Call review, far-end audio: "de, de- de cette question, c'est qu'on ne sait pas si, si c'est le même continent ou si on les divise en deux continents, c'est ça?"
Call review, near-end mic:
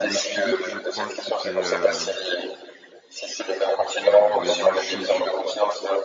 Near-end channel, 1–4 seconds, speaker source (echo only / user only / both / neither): both